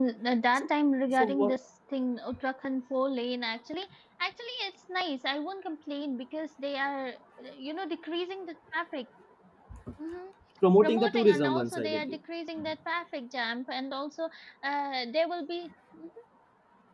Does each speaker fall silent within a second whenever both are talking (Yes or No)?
No